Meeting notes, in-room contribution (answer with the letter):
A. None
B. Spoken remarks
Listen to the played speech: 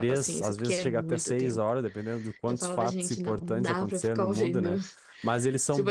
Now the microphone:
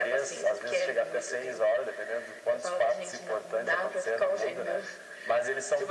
A